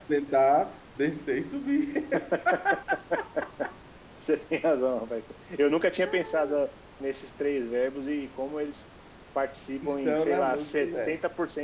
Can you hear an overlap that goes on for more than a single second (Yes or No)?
Yes